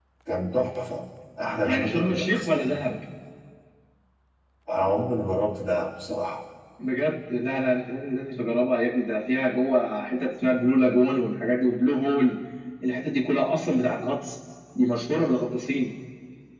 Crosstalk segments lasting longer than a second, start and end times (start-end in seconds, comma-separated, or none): 1.6-2.9